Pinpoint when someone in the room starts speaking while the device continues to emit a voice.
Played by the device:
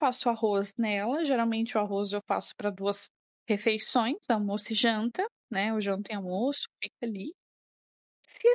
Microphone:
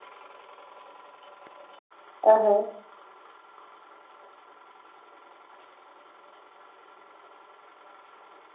2 s

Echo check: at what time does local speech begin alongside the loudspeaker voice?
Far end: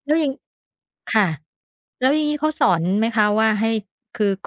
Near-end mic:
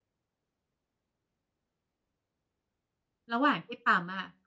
3 s

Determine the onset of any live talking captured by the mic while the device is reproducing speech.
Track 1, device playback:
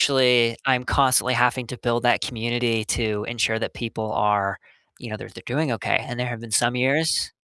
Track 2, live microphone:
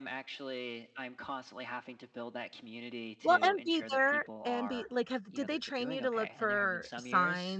3 s

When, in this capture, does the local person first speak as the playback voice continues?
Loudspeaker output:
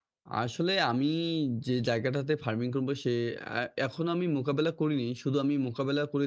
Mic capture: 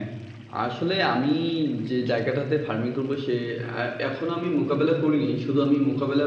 none

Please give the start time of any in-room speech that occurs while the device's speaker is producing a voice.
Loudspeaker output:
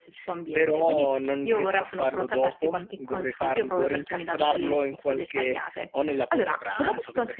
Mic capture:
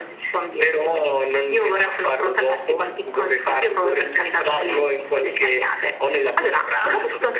none

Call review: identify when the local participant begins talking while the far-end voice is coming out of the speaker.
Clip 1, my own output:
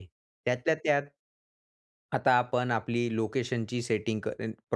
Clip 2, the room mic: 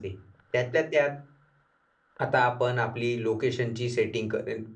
none

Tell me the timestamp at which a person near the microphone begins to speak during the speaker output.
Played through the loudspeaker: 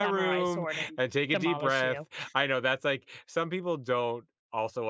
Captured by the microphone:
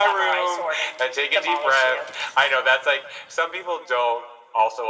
none

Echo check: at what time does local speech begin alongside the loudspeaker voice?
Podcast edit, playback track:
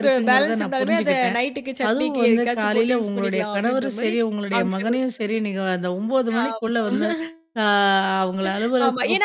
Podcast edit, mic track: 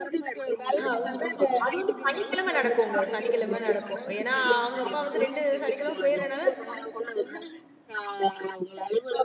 1 s

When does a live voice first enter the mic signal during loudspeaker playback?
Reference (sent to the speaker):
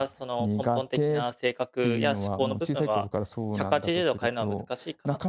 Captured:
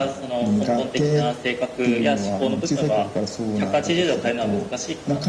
none

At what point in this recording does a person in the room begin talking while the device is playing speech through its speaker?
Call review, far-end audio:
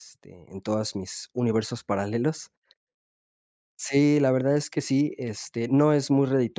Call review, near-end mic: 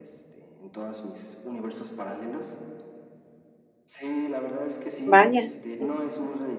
5 s

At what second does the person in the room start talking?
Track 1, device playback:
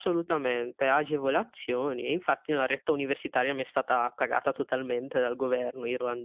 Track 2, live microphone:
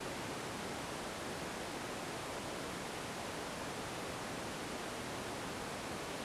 none

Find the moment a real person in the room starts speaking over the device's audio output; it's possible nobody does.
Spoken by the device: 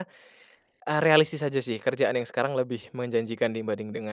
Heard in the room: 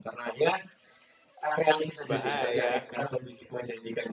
2 s

